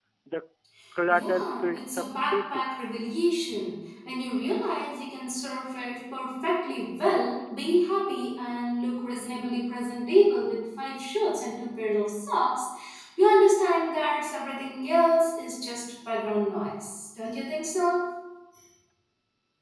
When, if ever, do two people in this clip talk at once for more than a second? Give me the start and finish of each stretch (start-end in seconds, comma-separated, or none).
1.1-2.7